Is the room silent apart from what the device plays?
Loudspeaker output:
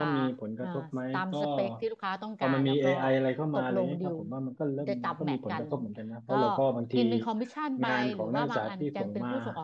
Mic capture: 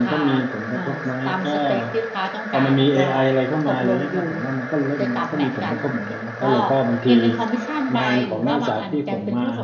Yes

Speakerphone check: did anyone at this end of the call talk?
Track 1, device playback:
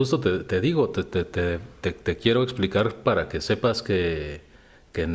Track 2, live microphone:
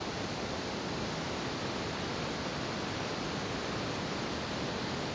No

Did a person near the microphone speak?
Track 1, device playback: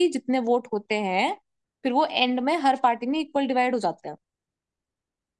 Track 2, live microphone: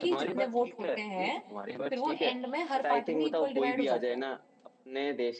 Yes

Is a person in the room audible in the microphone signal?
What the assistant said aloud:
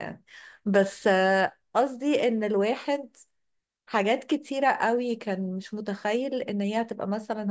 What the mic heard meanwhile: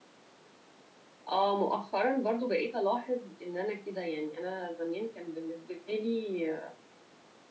Yes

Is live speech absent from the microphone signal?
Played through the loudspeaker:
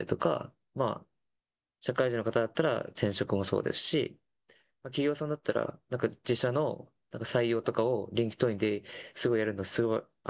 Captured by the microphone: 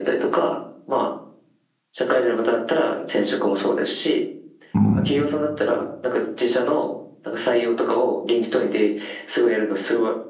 No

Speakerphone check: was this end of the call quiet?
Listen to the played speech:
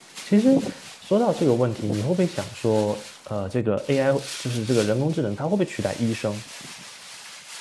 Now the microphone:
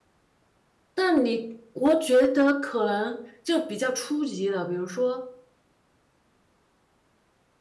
No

